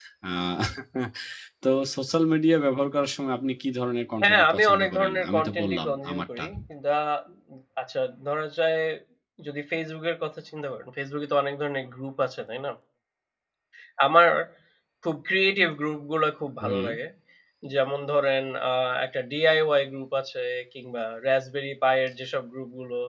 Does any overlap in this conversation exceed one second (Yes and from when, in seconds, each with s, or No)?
Yes, from 4.2 s